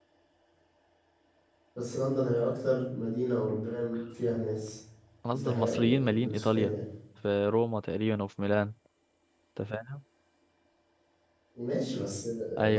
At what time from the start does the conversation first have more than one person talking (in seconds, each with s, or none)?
5.3 s